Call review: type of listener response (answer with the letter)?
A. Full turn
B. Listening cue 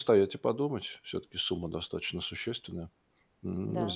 B